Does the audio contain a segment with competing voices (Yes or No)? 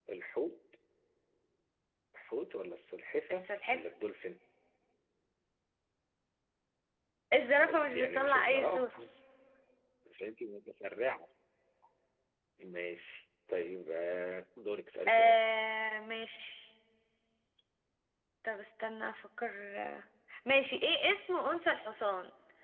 Yes